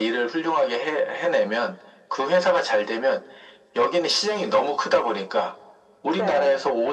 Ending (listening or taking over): listening